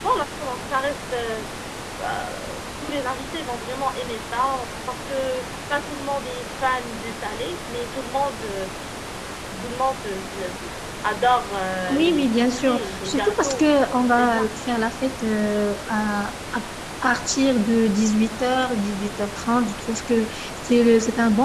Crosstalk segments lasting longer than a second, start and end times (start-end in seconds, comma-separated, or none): 11.9-13.6